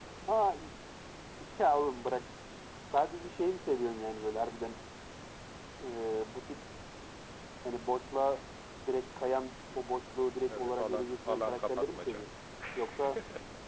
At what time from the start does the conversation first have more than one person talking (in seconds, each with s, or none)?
10.5 s